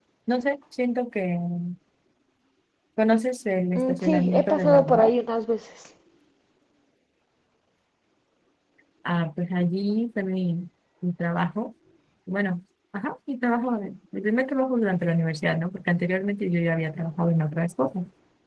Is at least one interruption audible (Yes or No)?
Yes